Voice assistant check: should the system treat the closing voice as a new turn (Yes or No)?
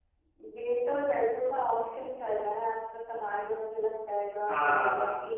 No